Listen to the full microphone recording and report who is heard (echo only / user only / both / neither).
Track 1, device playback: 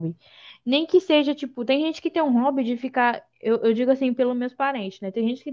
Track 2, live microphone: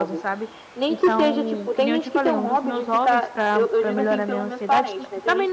both